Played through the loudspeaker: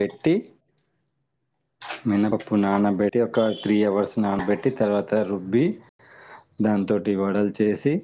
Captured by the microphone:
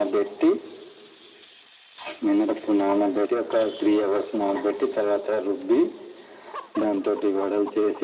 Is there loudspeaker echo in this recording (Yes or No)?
Yes